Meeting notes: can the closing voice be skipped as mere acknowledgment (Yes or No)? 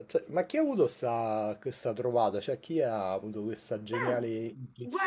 No